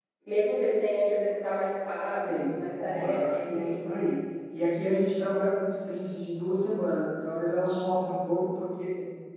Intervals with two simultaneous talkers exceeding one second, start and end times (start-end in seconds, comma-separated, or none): 2.2-3.8